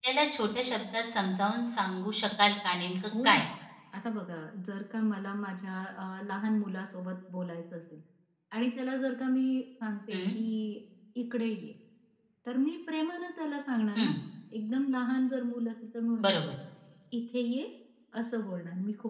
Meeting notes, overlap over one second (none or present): none